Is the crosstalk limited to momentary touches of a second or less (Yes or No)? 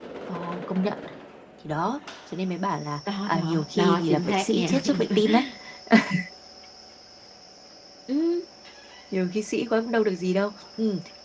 No